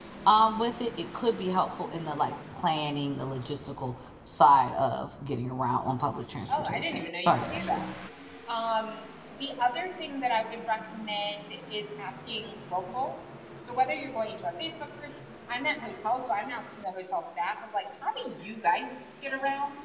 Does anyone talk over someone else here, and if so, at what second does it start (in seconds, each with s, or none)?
6.5 s